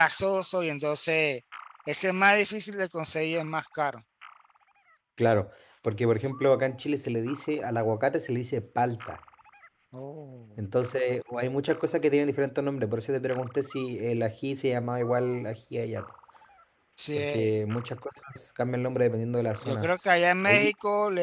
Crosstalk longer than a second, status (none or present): none